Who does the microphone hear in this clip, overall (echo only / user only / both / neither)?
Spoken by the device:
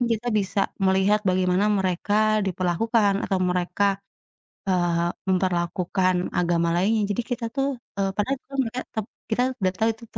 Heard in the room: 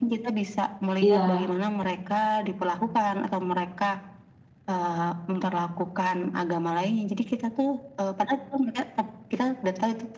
both